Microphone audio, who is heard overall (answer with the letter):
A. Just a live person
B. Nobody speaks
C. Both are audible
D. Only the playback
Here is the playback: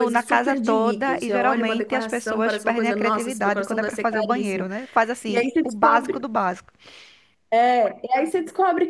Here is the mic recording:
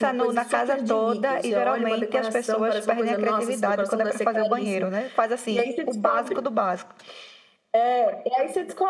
D